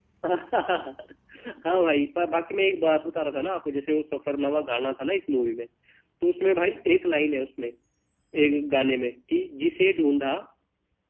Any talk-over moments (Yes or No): No